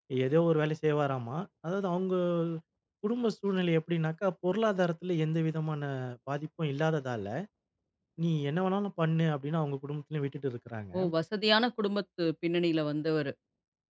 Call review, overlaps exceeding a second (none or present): none